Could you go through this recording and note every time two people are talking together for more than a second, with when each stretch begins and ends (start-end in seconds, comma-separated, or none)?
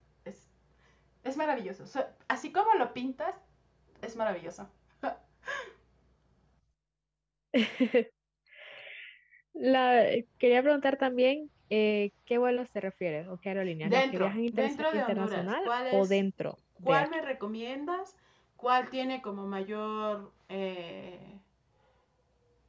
13.8-16.2